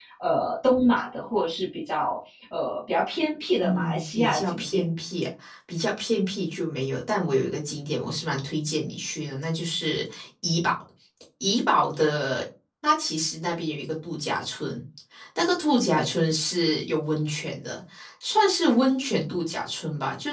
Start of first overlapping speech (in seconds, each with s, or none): 3.6 s